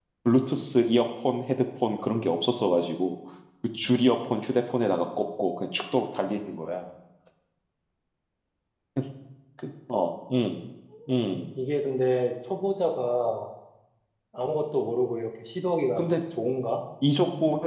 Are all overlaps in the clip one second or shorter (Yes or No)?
Yes